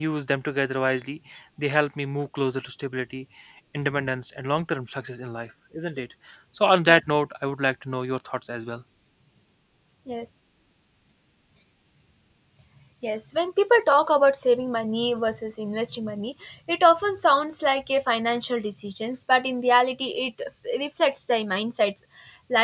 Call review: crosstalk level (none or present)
none